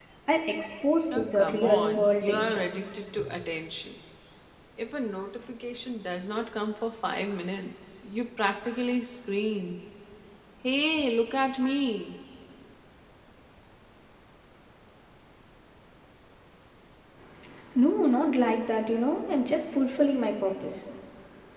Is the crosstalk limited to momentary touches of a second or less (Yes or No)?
No